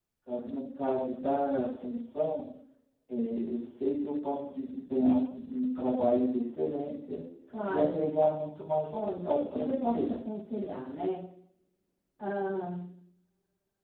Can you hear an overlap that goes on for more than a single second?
Yes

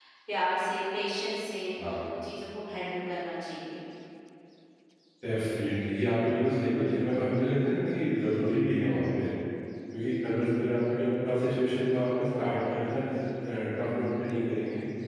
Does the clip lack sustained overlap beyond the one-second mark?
Yes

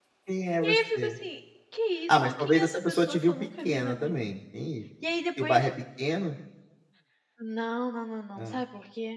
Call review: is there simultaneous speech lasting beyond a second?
Yes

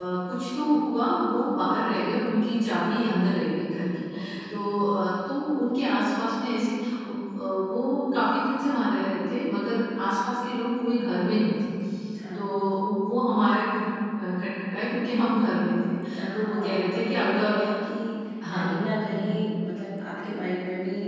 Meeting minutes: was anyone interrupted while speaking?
Yes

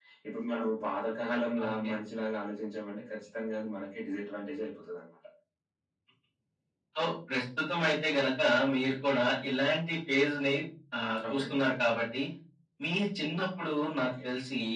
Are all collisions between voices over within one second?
Yes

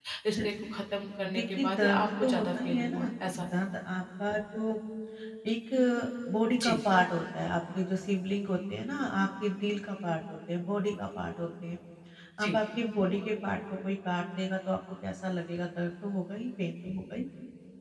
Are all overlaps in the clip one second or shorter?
No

